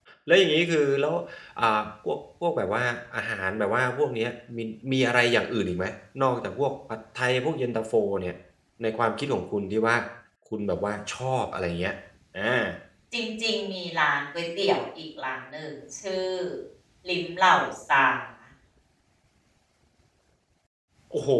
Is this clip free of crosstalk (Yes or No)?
Yes